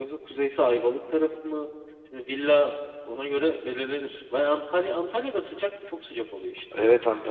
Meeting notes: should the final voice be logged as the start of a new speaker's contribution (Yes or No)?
Yes